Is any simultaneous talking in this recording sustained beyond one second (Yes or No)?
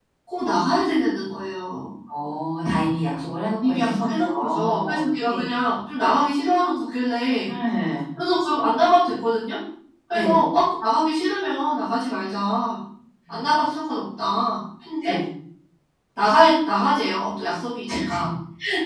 Yes